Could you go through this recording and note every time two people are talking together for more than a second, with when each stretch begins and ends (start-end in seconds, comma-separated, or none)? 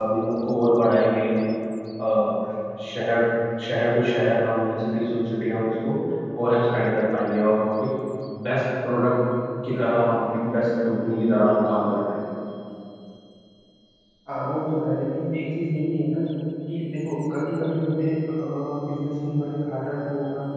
none